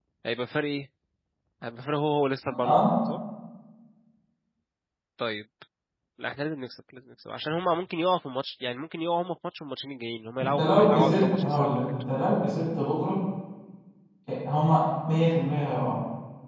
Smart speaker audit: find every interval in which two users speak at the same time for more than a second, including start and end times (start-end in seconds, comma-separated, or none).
10.4-11.8